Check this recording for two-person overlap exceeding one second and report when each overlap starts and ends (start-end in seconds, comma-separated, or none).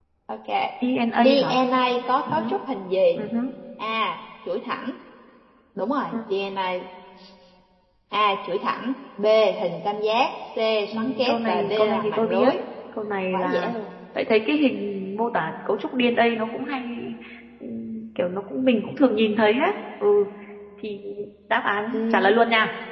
10.9-12.5